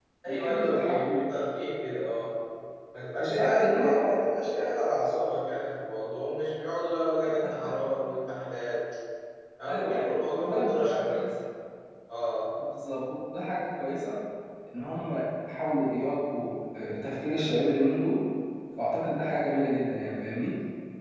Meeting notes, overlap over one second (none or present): present